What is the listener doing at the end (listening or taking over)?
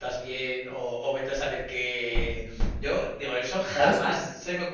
listening